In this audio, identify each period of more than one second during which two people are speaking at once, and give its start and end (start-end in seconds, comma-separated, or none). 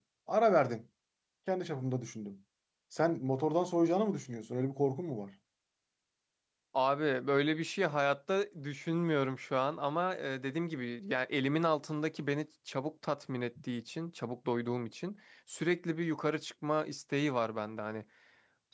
none